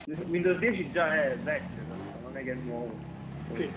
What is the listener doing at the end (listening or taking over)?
taking over